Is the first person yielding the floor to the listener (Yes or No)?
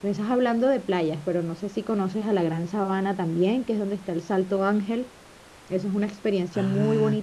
Yes